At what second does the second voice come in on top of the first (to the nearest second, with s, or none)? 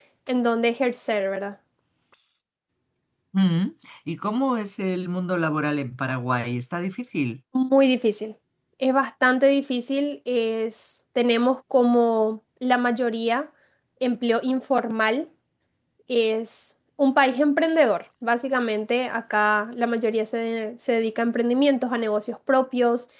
none